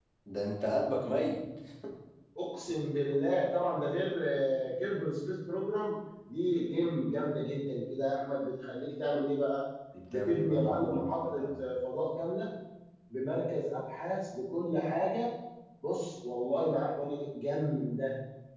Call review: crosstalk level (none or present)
present